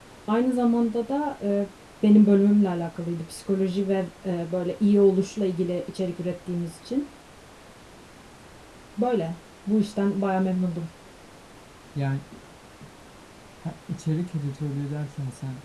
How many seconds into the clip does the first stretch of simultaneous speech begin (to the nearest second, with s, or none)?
none